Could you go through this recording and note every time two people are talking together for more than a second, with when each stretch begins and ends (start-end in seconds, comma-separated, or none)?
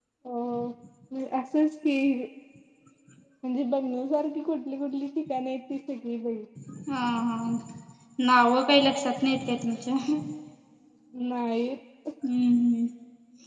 none